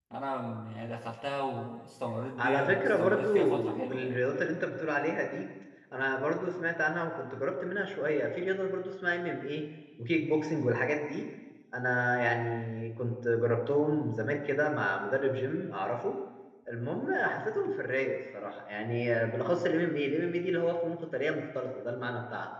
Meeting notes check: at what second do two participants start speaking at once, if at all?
2 s

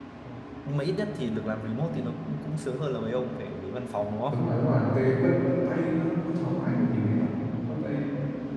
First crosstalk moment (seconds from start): none

